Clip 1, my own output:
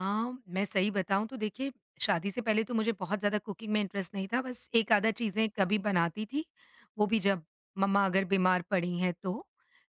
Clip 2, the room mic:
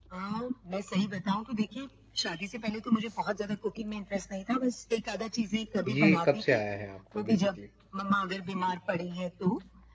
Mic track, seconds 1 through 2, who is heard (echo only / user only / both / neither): echo only